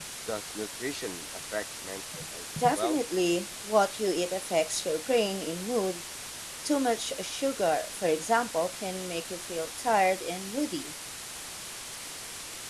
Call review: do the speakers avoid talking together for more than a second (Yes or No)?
Yes